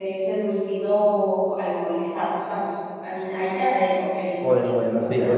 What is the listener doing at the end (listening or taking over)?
taking over